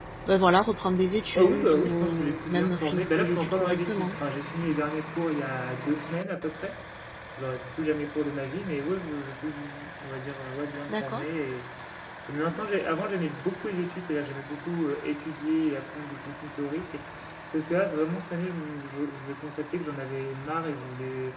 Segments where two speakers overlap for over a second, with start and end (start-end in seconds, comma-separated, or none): 1.4-4.2